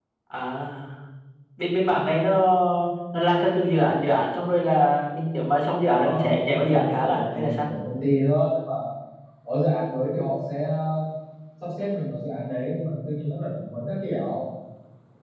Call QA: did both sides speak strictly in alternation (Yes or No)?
No